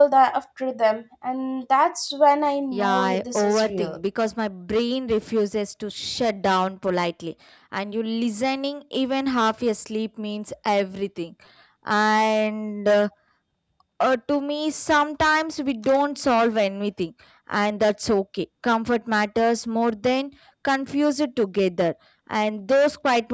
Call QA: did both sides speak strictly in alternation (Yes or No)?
No